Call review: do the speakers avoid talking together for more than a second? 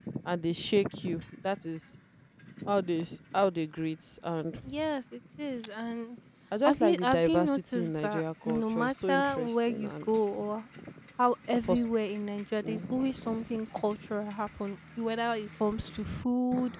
No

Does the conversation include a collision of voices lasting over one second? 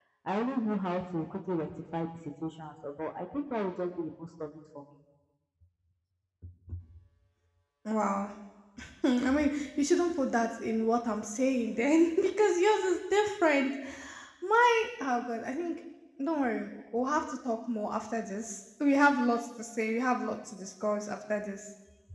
No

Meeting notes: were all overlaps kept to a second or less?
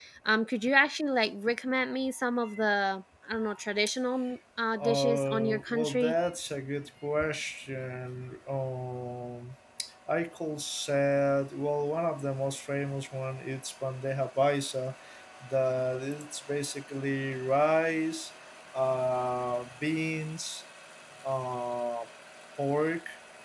No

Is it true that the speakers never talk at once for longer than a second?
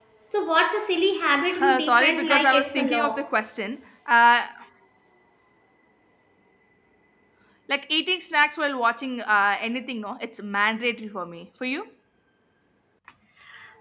No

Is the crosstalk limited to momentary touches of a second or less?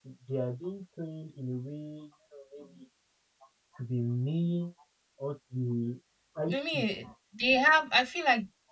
Yes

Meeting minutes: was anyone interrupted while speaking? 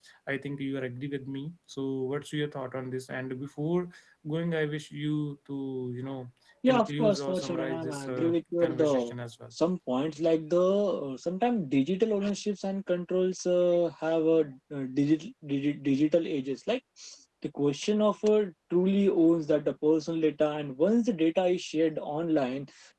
Yes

